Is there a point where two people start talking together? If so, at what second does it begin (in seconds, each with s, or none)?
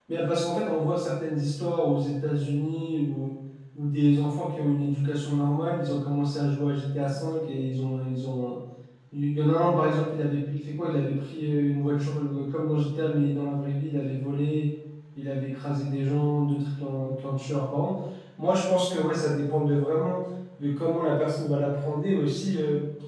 none